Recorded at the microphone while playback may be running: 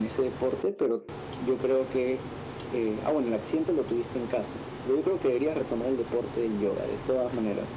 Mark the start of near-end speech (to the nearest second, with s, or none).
none